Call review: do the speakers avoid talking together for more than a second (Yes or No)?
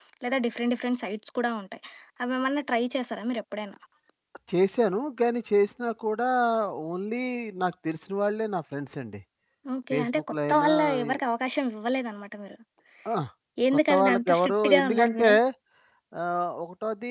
No